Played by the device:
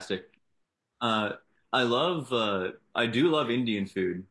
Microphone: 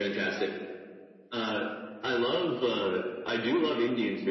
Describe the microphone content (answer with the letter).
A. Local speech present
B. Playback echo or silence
B